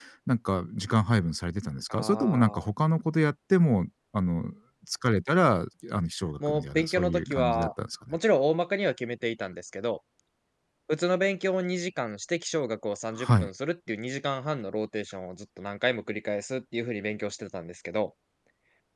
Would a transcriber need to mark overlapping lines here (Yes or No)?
Yes